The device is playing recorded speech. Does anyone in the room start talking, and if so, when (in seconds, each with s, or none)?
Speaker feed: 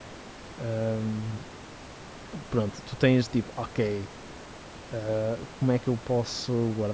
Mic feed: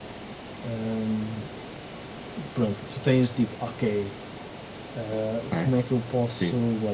5.5 s